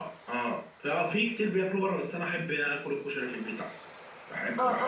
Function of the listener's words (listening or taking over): taking over